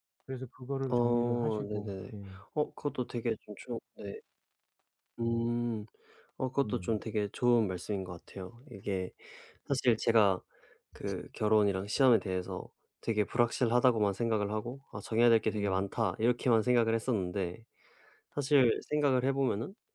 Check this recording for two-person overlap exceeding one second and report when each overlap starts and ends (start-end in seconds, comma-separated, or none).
0.9-2.1